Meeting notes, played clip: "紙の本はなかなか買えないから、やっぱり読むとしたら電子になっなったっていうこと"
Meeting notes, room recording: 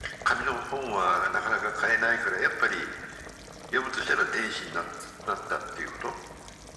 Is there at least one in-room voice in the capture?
No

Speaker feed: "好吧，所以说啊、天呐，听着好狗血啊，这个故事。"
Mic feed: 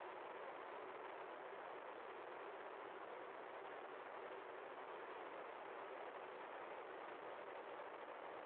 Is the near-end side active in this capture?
No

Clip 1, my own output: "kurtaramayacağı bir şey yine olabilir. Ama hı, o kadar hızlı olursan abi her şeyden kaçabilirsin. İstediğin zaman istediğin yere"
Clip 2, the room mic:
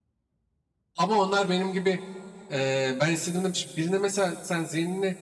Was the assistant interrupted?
Yes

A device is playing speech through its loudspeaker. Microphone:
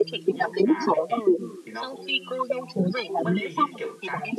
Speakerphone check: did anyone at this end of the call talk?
Yes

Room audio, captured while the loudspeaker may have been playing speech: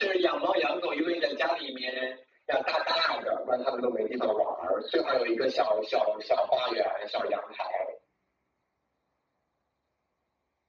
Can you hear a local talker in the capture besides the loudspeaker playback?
No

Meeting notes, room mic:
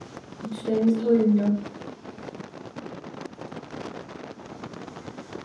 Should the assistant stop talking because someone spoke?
Yes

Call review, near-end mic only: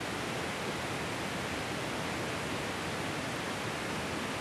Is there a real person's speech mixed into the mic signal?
No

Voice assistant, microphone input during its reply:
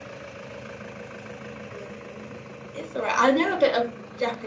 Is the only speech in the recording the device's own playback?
Yes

